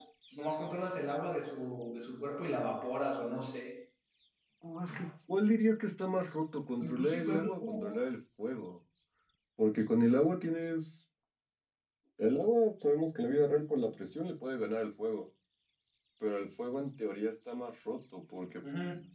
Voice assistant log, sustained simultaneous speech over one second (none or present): present